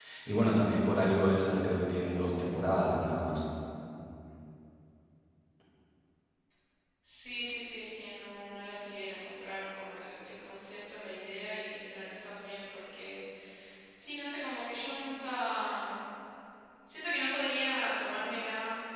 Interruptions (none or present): none